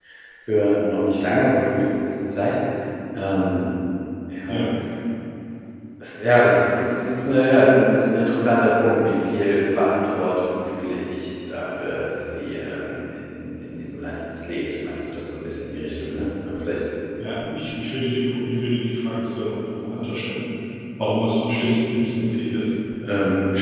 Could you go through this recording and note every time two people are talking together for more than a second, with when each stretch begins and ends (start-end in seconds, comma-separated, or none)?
none